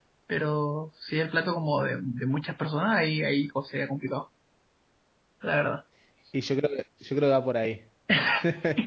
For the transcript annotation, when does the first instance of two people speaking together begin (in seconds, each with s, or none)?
none